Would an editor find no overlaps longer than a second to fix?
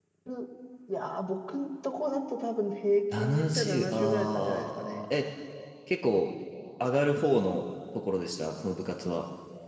No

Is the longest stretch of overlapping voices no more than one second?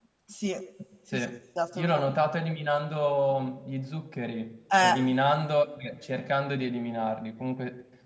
Yes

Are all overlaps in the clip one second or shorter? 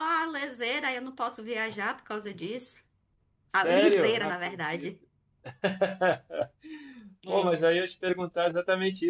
No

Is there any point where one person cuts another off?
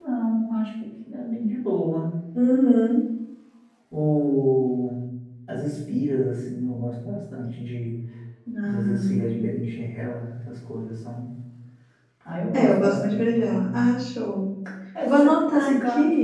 Yes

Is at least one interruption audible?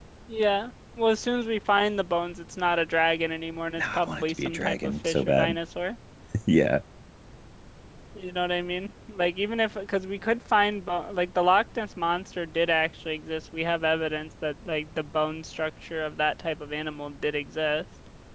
Yes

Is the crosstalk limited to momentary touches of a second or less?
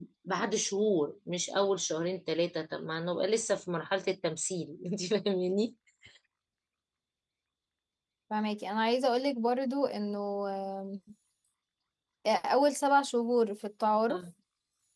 Yes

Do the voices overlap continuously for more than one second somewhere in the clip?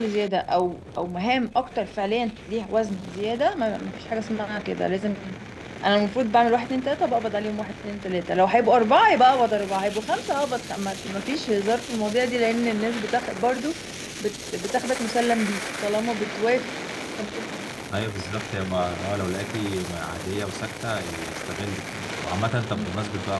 No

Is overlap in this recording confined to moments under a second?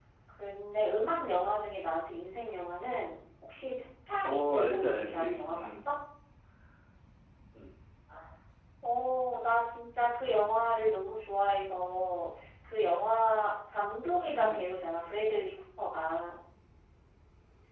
No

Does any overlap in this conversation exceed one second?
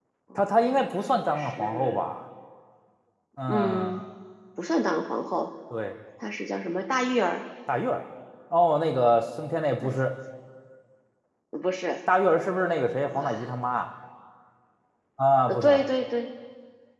Yes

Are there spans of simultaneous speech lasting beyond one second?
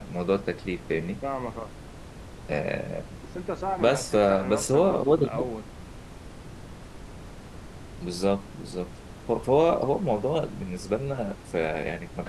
Yes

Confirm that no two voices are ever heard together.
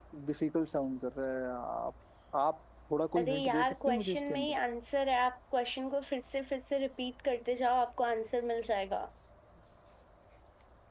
No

